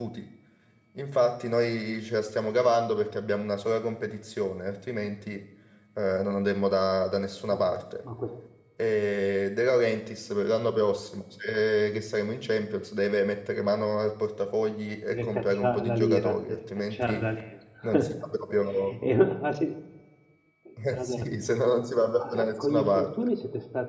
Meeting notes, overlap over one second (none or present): present